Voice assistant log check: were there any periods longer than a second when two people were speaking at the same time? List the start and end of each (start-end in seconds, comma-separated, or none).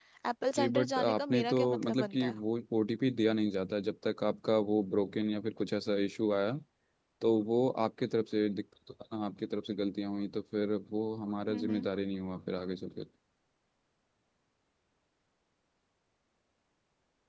0.6-2.4